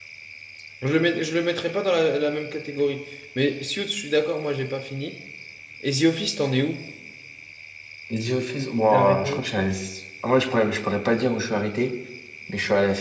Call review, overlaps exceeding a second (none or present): none